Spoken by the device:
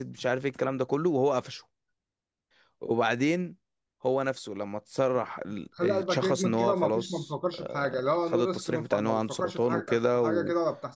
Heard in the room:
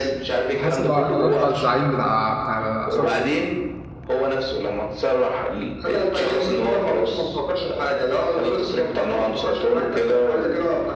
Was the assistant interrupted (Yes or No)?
Yes